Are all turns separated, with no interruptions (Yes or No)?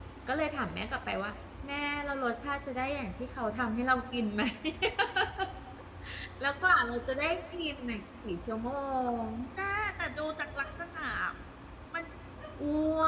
Yes